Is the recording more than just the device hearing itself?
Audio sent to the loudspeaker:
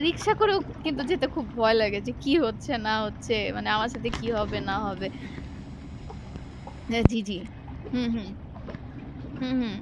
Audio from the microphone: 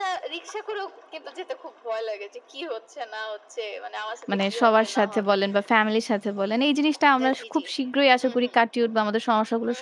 Yes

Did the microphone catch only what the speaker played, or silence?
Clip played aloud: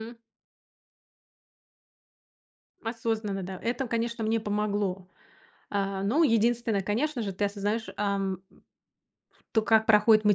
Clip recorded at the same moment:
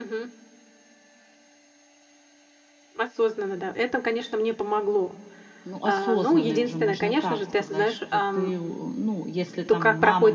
No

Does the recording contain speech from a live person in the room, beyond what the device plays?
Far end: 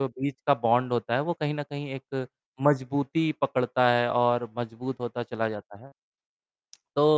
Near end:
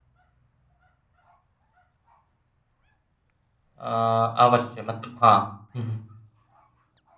Yes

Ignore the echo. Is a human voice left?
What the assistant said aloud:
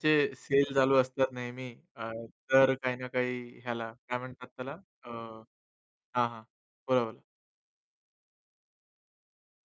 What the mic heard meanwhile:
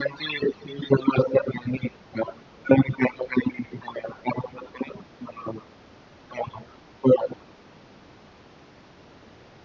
No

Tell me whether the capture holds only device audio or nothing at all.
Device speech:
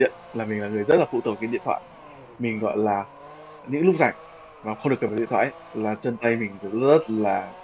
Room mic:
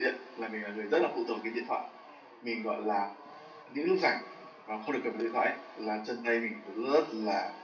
Yes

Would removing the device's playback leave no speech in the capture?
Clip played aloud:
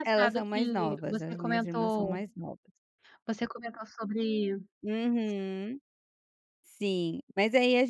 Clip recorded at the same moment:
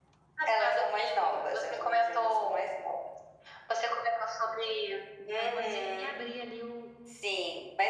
No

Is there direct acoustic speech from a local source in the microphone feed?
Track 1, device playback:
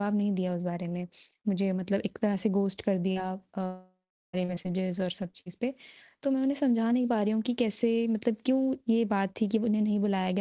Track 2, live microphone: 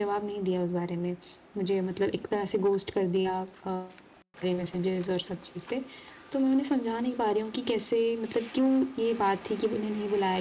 No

